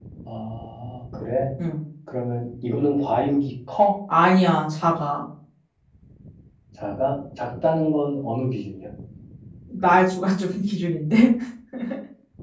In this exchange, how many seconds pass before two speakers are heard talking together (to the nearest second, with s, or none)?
none